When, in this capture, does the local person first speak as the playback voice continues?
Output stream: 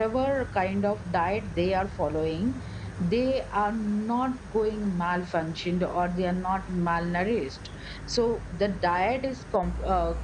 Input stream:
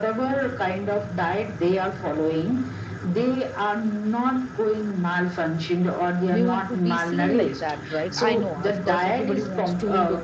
6.3 s

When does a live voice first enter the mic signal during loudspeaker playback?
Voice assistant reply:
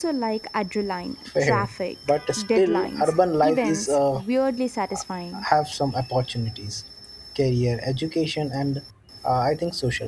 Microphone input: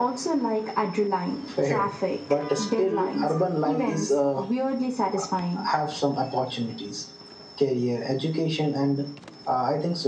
none

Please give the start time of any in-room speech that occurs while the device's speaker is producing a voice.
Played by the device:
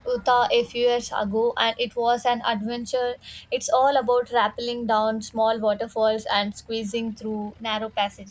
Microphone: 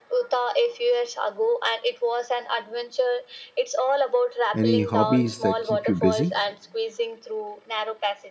4.5 s

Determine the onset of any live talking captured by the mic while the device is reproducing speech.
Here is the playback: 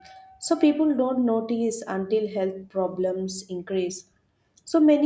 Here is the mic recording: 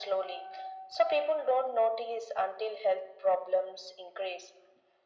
none

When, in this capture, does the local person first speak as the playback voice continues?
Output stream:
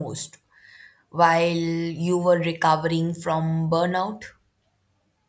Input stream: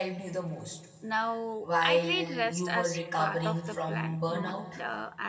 1.0 s

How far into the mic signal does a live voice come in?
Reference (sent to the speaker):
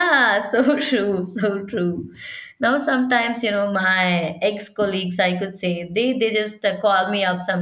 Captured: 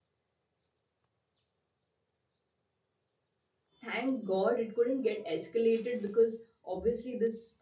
3.8 s

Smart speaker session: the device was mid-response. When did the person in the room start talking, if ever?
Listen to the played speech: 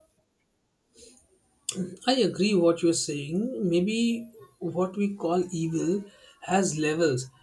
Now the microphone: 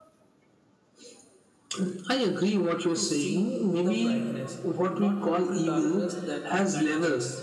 3.0 s

